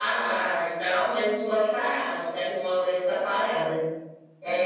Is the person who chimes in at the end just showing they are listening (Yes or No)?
Yes